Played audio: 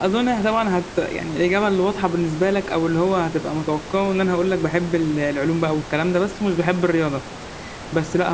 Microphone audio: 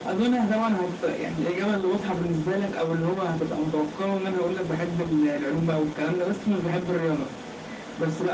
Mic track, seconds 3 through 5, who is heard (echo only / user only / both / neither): echo only